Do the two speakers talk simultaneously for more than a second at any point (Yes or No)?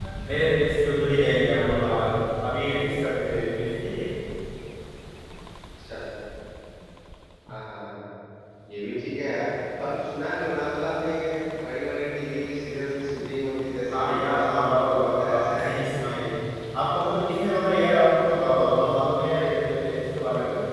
Yes